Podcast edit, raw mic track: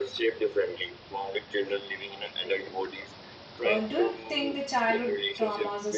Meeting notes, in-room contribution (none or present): present